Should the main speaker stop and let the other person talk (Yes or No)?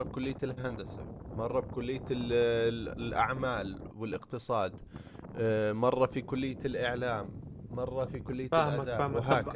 Yes